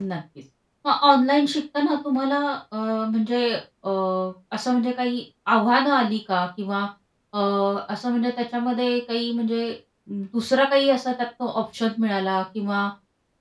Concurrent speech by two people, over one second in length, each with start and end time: none

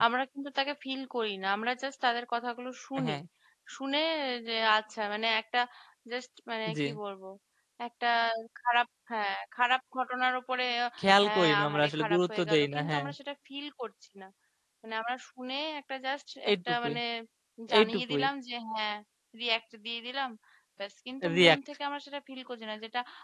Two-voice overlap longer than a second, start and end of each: 11.0-13.0

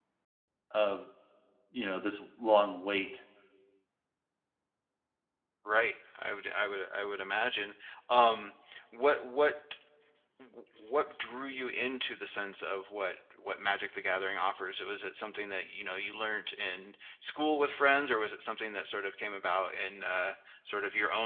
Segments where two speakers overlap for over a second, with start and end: none

